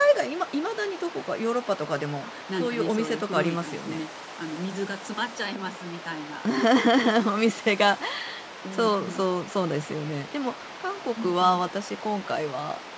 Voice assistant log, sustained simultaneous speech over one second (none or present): present